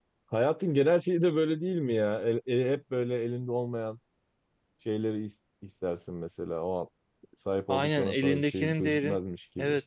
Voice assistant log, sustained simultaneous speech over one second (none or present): present